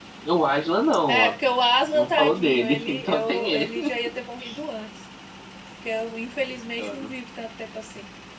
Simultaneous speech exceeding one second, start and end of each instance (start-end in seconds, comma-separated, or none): 1.8-3.7